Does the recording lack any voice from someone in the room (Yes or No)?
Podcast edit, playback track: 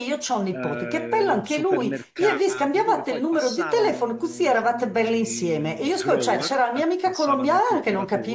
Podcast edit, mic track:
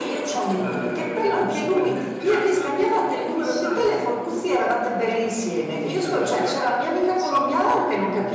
Yes